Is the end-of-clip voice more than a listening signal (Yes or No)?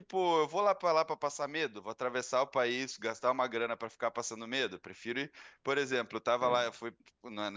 No